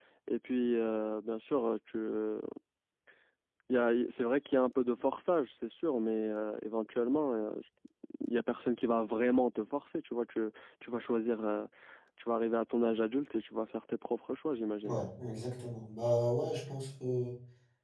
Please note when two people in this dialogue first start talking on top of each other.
none

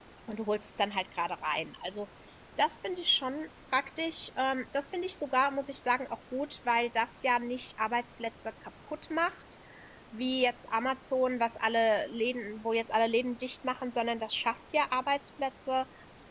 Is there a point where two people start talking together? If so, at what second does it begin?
none

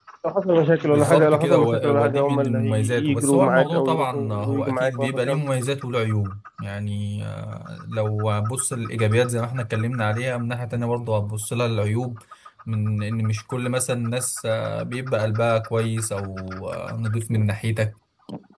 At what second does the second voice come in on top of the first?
0.8 s

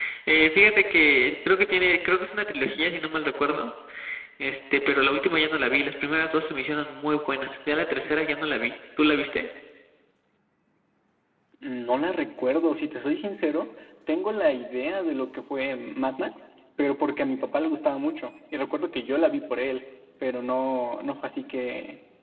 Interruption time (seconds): none

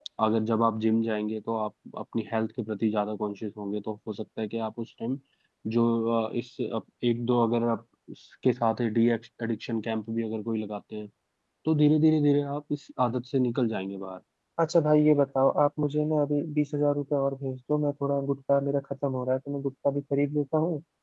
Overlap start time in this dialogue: none

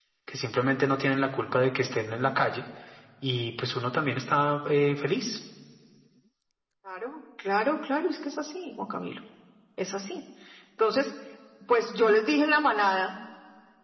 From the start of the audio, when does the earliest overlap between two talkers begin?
none

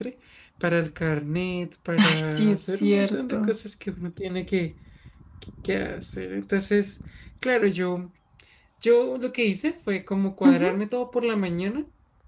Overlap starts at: 2.0 s

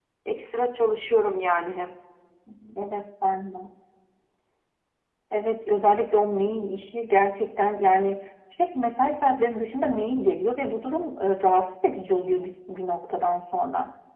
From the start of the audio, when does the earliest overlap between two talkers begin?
none

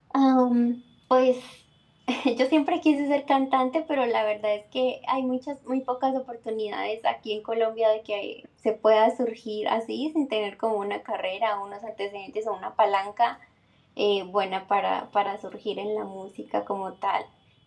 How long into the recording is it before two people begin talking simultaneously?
none

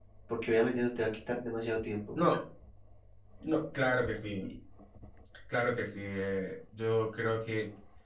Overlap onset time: none

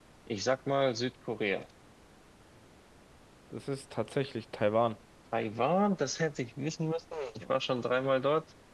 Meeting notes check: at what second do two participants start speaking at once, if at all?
none

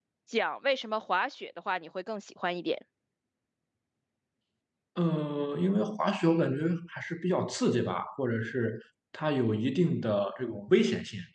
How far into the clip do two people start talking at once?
none

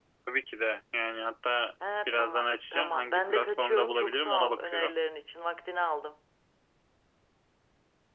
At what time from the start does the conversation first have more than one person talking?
2.1 s

